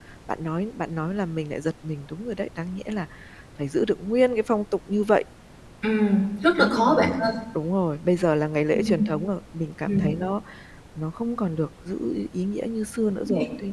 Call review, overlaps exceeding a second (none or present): none